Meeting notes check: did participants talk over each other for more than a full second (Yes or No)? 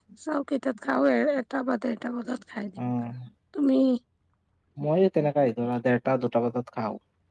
No